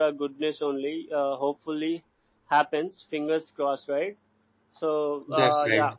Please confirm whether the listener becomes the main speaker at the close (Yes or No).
No